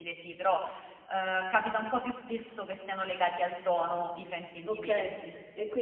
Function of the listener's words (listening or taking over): taking over